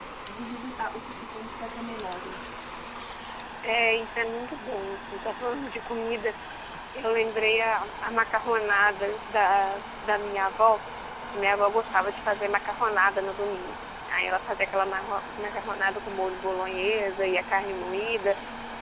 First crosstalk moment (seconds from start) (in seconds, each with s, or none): none